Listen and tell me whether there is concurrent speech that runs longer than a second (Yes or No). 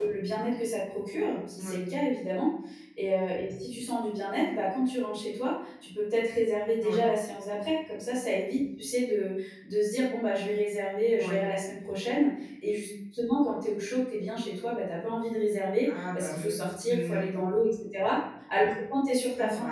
Yes